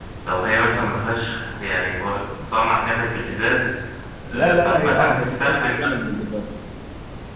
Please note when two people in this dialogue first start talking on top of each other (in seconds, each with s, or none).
4.3 s